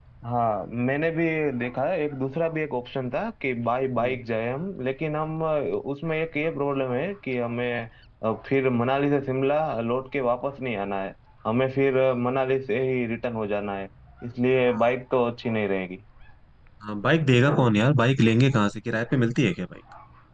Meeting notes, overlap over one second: none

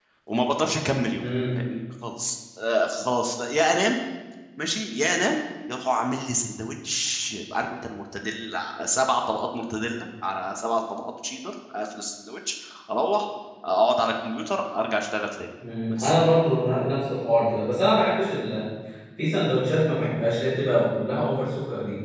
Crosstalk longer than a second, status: none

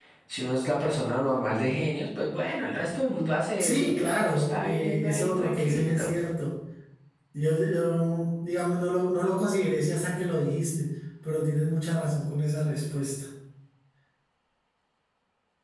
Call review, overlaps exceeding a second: present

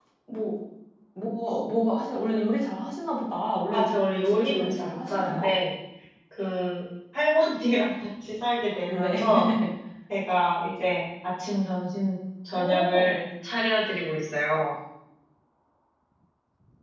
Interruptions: present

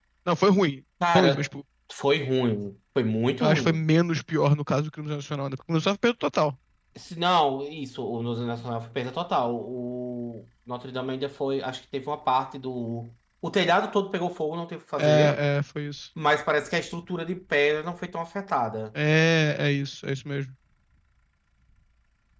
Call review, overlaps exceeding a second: none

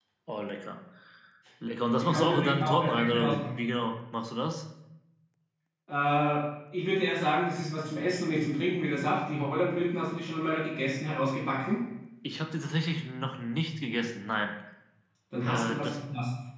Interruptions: present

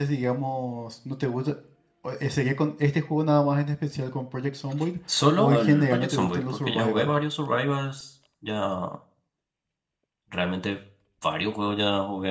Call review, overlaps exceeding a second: present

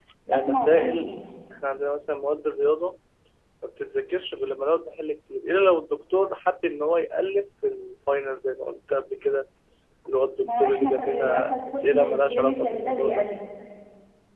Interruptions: present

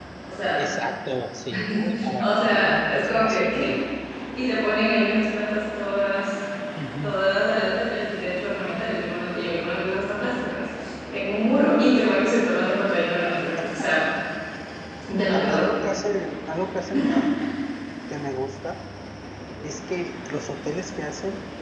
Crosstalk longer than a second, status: present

